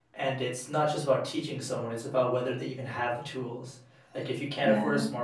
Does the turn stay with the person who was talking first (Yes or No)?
Yes